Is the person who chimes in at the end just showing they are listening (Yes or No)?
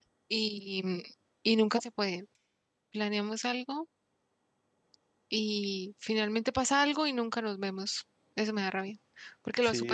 No